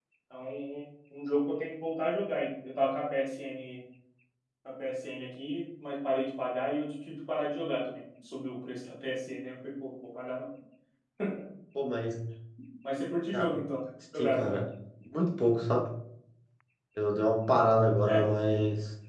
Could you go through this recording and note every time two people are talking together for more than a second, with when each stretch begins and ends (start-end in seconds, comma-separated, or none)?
none